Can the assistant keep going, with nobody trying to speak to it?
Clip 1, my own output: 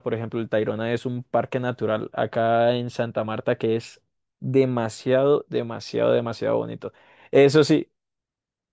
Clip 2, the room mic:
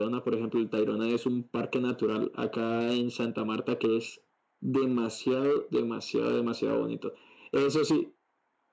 Yes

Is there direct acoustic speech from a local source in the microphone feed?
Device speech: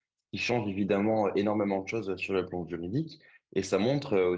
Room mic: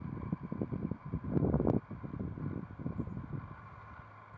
No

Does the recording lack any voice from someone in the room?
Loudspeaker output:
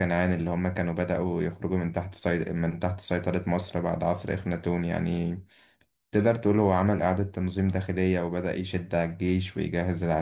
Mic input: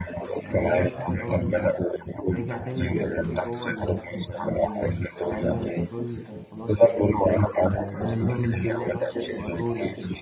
No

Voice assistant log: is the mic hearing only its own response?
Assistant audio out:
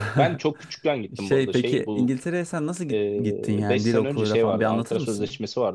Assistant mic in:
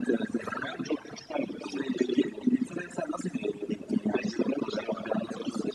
Yes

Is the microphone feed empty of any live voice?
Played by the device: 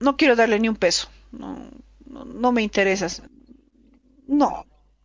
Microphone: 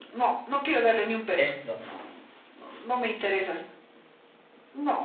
No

